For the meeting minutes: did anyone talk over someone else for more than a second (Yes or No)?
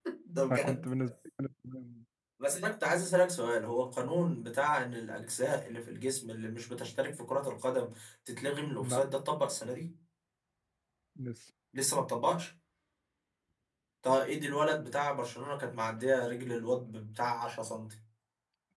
No